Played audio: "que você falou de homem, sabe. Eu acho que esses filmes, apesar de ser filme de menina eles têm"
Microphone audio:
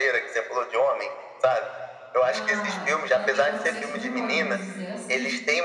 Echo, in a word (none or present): present